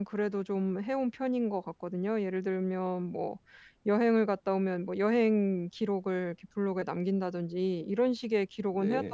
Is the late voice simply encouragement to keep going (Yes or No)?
Yes